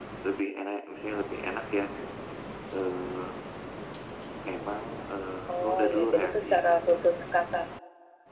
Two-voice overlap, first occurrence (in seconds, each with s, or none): 5.5 s